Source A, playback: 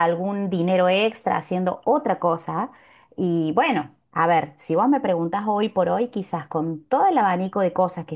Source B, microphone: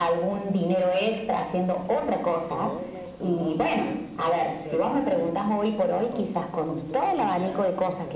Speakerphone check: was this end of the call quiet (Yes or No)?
No